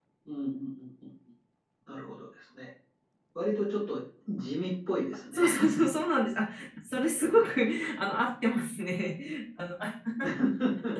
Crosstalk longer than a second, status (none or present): none